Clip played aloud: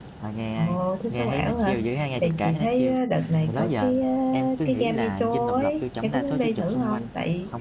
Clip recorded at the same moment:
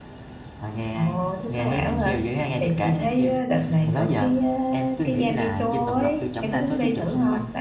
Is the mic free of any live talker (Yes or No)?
Yes